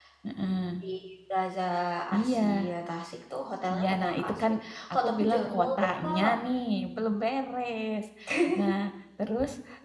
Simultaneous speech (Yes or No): Yes